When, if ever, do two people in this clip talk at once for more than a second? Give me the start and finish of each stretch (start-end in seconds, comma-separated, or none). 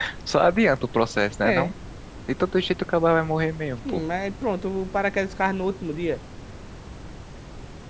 none